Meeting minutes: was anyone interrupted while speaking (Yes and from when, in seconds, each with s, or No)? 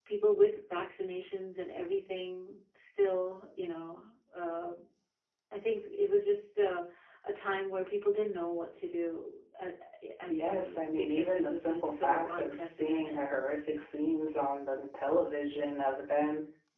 Yes, from 10.3 s